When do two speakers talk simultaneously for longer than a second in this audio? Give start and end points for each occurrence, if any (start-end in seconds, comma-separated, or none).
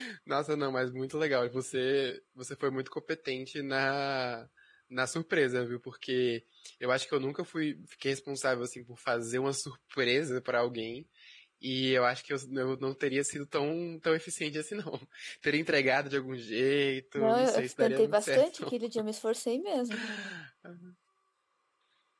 17.2-18.6